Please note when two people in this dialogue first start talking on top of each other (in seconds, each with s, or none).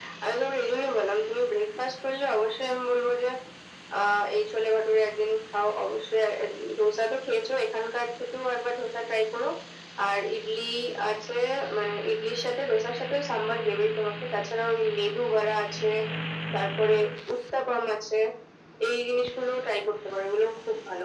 none